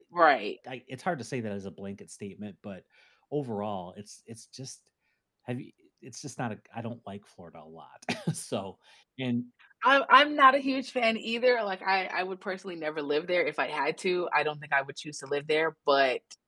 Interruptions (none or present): none